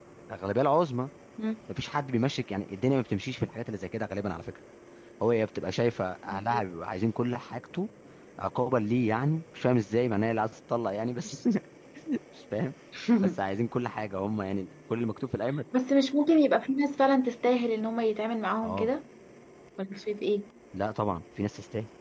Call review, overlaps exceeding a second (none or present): none